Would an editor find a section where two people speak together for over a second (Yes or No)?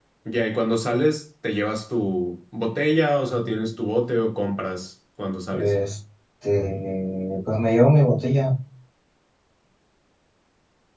No